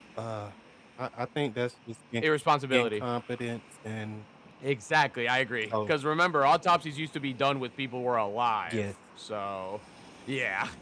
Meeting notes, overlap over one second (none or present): none